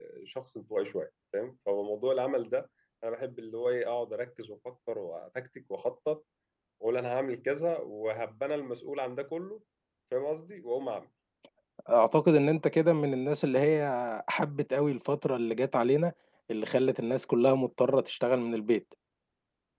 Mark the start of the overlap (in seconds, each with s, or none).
none